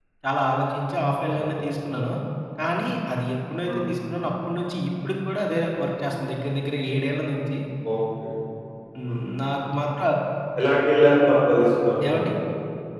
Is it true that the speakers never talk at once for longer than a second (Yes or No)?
Yes